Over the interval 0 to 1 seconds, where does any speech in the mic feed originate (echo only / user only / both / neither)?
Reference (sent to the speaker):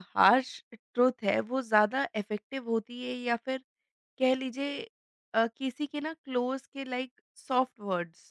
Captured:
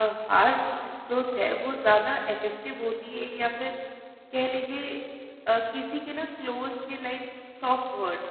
echo only